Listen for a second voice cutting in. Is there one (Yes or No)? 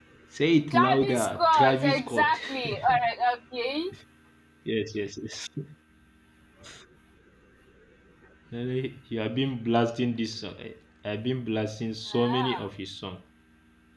Yes